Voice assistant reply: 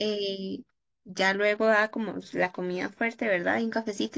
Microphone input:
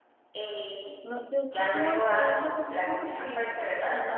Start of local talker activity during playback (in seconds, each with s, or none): 1.0 s